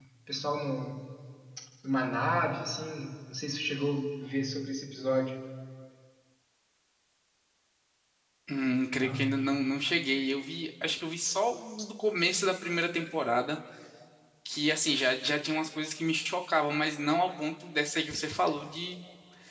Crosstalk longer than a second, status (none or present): none